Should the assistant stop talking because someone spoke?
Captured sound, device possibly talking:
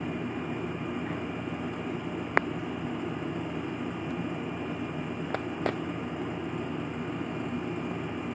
No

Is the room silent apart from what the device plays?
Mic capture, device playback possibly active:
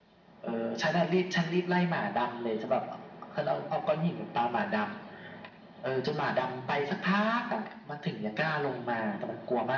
Yes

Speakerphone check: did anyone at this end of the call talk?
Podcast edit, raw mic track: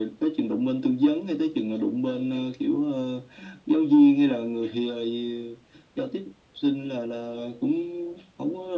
No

